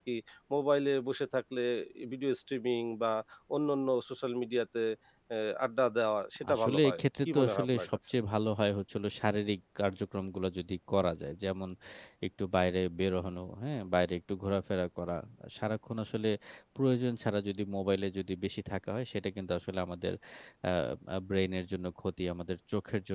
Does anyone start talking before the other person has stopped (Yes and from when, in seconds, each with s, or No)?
Yes, from 6.4 s